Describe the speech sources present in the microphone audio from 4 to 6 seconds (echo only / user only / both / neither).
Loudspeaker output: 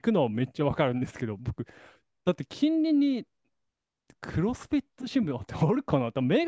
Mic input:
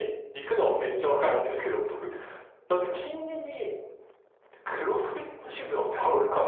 echo only